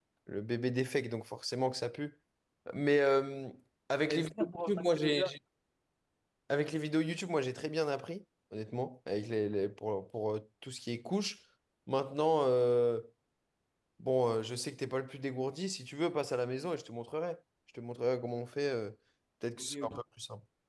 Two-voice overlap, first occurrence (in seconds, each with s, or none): 4.1 s